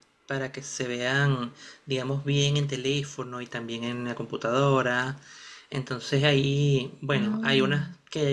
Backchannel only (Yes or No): Yes